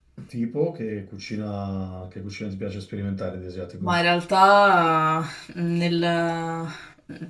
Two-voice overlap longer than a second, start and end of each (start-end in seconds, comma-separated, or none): none